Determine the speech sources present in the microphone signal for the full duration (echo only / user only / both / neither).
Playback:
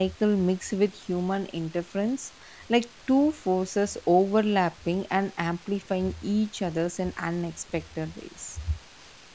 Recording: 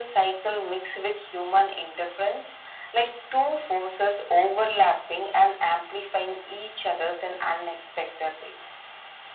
echo only